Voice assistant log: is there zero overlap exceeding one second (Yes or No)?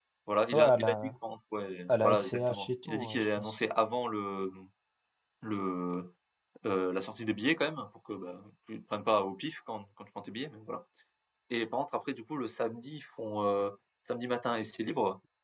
No